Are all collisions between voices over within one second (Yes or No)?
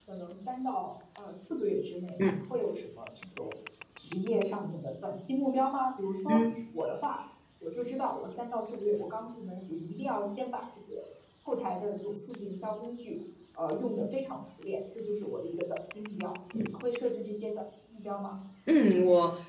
Yes